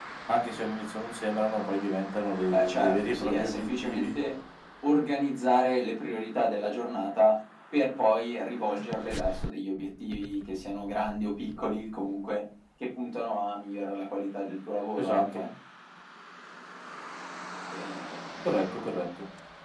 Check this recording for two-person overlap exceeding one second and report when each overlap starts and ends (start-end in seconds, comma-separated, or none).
2.5-4.1